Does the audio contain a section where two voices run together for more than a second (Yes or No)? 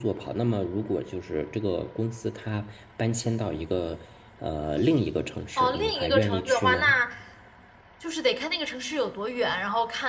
Yes